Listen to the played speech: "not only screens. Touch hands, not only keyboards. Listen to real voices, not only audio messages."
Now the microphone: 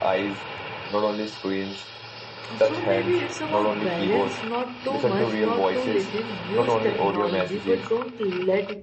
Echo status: present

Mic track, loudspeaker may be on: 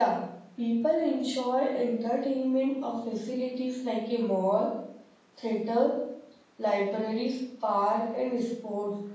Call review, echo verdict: none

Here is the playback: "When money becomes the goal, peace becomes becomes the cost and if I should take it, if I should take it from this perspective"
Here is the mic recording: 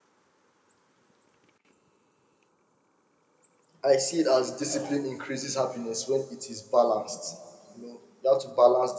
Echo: none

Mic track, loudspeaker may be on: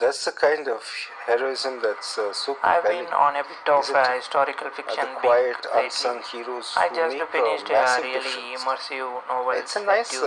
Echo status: present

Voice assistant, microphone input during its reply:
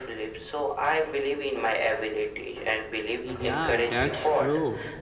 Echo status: present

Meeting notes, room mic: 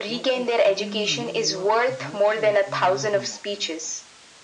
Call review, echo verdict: present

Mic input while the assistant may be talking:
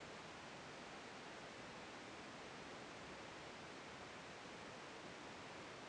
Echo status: none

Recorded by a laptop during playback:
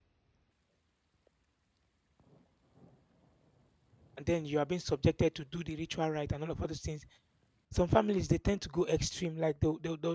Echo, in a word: none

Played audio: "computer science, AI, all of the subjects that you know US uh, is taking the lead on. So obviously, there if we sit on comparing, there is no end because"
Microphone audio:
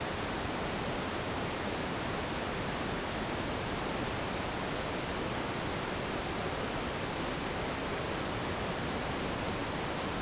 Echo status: none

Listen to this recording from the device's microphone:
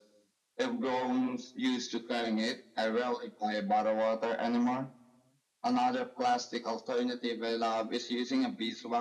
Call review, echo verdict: present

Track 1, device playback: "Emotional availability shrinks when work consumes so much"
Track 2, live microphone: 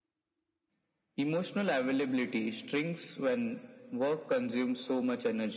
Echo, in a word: present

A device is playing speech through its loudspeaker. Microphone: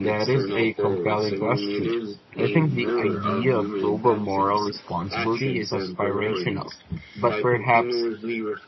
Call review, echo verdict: present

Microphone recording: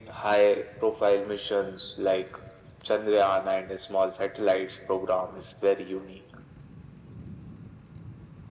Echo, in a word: present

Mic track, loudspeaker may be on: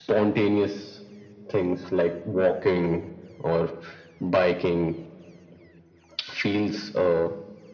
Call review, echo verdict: present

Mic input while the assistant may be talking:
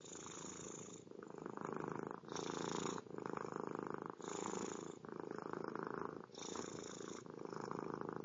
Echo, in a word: none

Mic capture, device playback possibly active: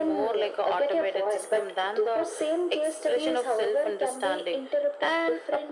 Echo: present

